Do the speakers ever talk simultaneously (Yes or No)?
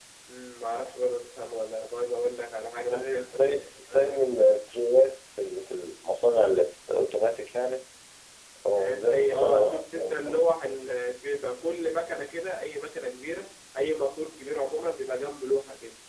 Yes